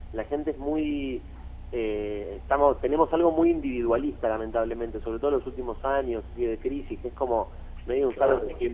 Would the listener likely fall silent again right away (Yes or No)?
Yes